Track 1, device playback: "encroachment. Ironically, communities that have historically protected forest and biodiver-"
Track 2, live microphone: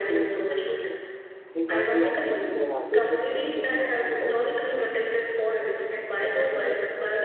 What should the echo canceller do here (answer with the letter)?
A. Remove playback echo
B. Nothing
A